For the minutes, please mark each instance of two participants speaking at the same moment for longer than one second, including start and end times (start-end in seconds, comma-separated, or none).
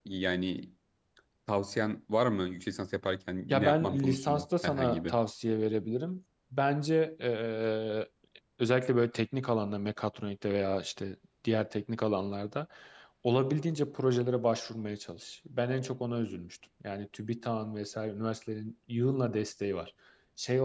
3.5-5.1